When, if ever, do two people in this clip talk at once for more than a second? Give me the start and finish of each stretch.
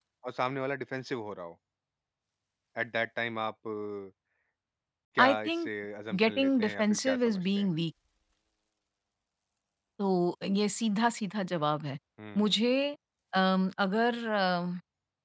6.2-7.7

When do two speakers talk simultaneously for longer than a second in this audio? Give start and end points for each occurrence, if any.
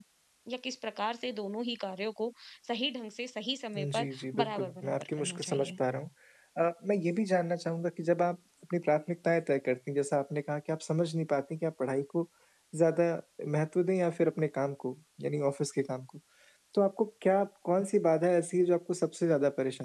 3.8-5.7

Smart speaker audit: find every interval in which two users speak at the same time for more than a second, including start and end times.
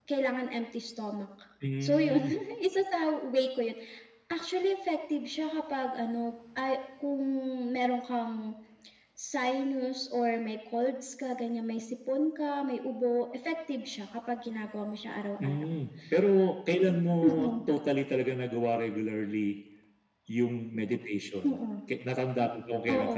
none

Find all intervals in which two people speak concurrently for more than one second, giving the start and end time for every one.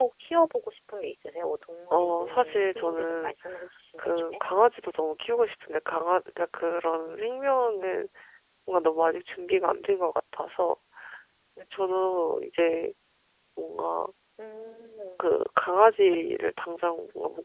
1.9-3.3

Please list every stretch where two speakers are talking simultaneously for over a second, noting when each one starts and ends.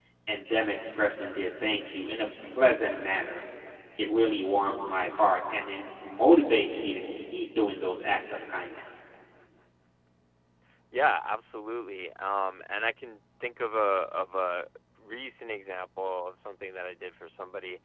none

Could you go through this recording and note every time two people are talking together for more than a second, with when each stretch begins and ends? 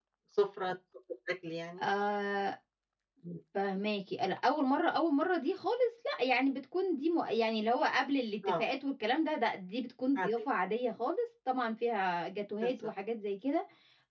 none

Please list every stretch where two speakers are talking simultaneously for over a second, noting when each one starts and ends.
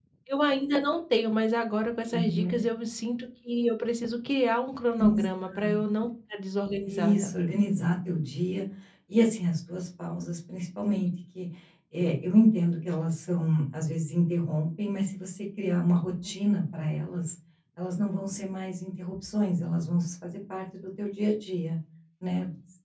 none

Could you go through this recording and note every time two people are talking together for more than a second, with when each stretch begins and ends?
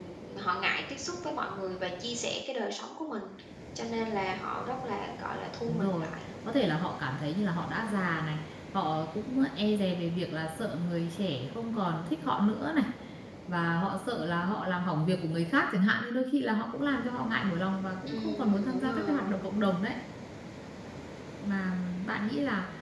18.1-19.3

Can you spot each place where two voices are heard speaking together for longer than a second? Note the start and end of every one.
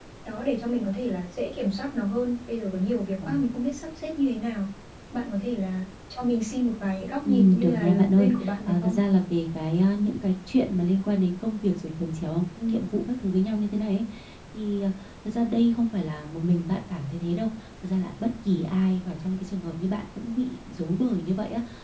7.2-9.0

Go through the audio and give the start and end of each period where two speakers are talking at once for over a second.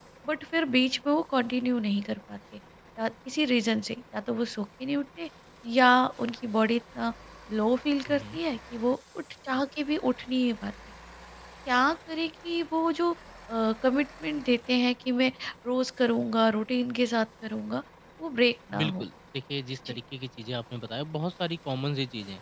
none

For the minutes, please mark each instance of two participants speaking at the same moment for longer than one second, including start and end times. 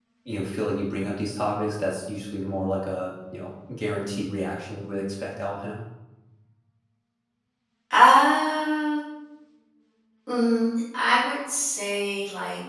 none

